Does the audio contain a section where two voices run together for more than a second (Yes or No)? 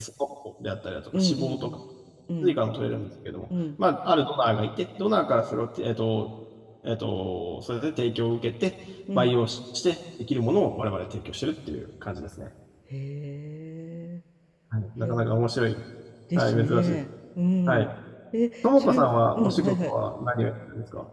Yes